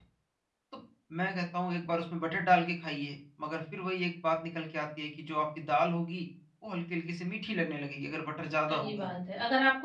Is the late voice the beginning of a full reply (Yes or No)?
Yes